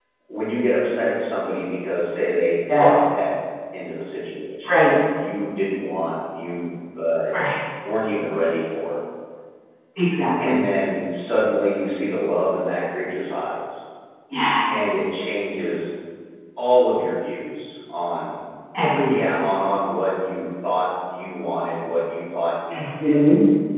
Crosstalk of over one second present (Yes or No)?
No